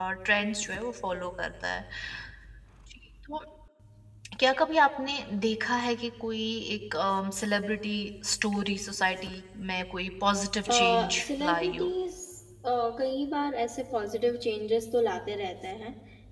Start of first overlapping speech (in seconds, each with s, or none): 10.7 s